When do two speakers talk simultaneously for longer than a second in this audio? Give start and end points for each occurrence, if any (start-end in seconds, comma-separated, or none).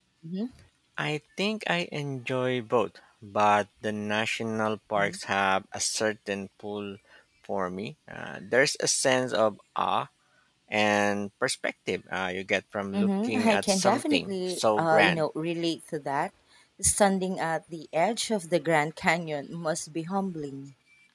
12.9-15.2